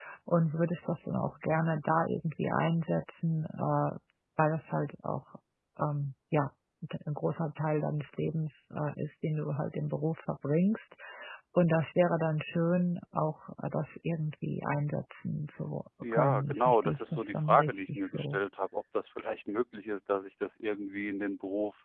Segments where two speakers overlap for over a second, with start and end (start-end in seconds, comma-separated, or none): 16.1-18.4